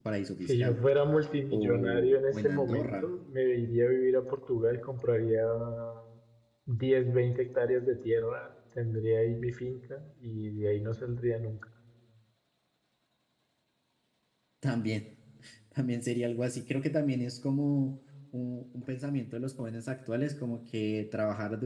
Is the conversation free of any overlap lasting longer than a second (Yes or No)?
No